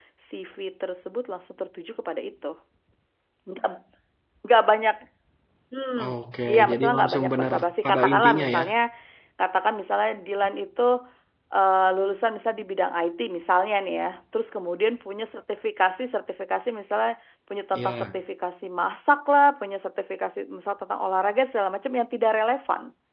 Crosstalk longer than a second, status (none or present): present